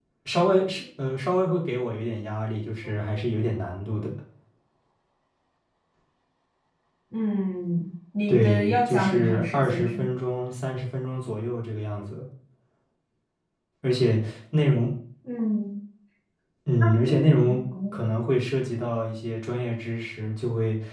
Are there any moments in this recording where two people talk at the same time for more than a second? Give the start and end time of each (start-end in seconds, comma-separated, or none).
8.3-10.1